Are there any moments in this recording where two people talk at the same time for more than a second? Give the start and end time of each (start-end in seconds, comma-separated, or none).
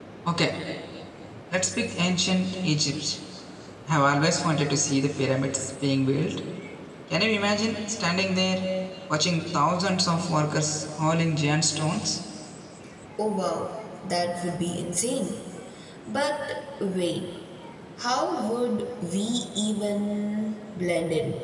none